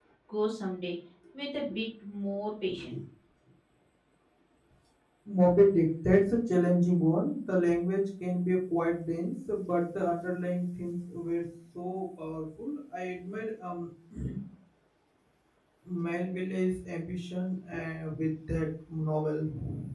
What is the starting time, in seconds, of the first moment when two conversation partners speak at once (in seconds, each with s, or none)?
none